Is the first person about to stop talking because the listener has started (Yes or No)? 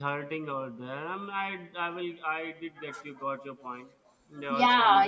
Yes